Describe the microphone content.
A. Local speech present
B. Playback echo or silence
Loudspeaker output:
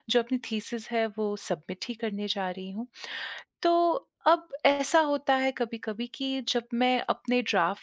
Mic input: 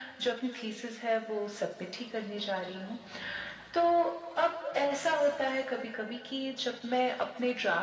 B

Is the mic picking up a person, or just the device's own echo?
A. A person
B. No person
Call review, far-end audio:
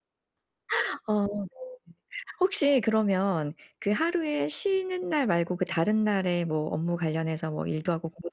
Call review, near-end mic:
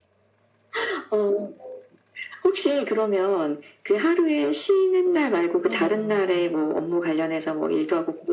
A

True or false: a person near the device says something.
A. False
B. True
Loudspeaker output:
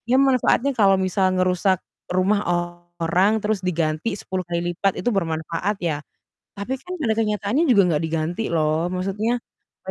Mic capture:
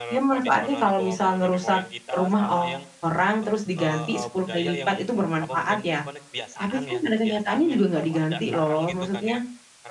B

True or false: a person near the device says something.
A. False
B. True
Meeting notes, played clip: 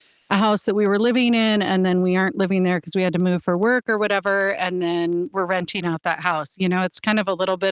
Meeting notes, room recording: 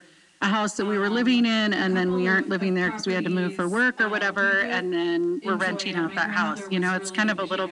B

